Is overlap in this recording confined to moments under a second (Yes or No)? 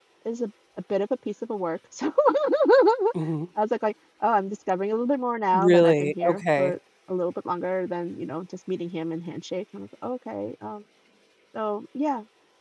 No